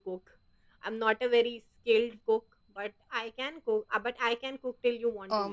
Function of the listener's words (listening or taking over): taking over